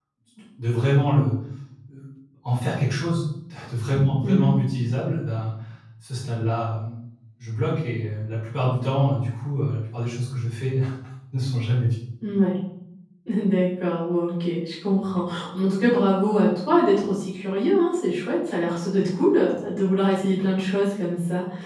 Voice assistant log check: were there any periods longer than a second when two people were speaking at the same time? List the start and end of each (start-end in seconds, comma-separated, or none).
none